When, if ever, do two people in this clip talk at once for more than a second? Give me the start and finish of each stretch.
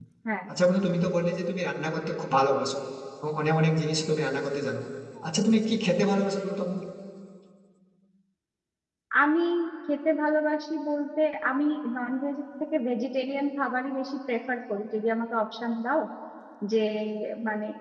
none

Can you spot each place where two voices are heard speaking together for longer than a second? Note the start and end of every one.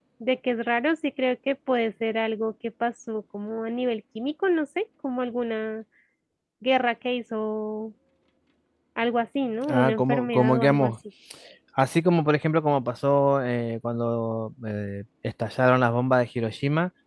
9.7-10.9

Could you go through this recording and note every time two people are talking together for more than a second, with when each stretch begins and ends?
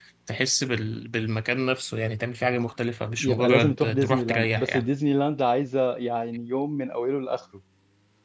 3.2-4.9

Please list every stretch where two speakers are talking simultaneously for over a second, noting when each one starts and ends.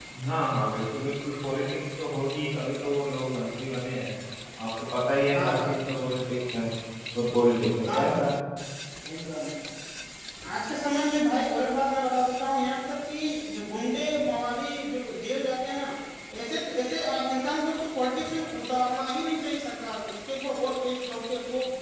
none

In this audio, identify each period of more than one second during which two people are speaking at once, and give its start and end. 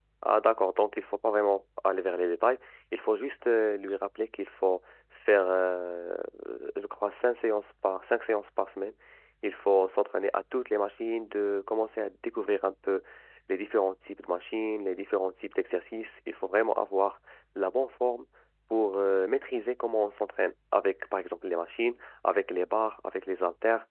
none

